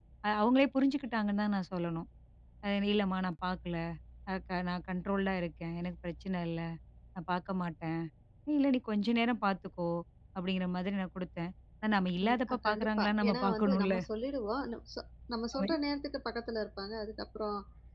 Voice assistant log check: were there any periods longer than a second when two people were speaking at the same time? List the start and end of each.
12.2-13.9

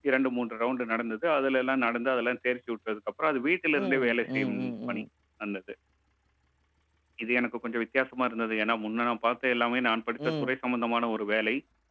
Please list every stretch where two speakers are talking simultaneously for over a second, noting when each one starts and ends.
3.8-5.0

